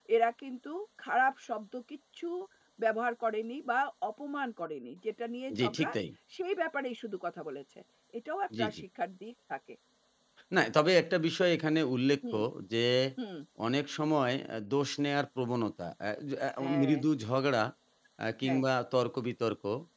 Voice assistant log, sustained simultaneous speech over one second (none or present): none